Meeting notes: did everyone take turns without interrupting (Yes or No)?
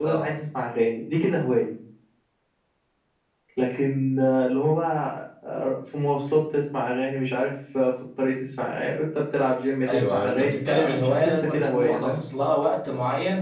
No